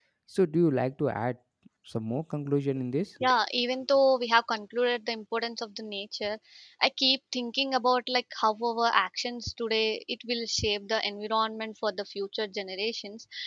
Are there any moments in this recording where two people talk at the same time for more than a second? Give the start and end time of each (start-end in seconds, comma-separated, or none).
none